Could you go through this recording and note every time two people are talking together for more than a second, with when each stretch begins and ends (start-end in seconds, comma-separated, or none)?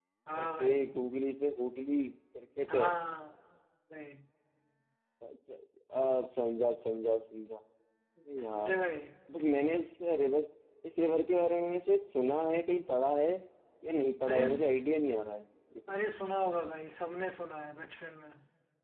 none